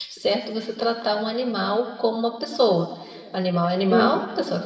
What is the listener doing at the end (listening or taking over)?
listening